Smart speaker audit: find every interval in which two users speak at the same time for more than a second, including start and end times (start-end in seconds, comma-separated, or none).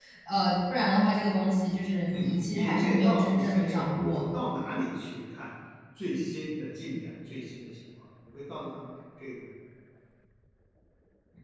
2.1-4.2